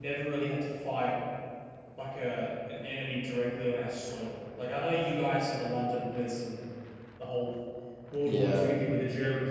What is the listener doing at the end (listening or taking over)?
listening